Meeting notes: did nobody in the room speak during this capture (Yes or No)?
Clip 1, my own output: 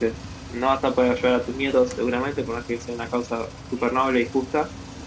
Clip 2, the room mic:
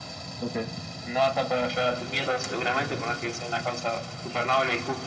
Yes